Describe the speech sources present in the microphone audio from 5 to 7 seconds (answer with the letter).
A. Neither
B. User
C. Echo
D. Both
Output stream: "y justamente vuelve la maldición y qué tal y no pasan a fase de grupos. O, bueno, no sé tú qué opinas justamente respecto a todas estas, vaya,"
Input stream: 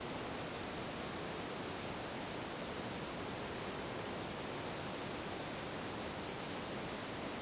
A